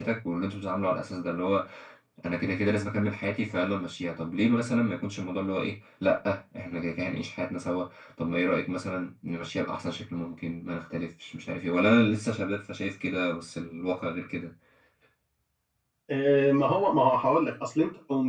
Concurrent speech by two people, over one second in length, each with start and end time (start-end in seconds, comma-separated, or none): none